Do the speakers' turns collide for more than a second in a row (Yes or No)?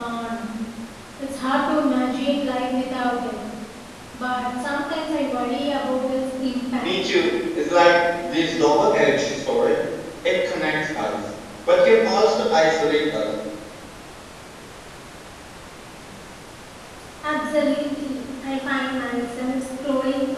No